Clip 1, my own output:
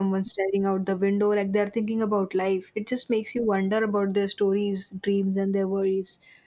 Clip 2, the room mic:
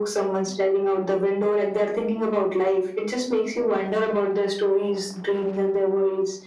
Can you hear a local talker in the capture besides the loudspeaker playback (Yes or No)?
No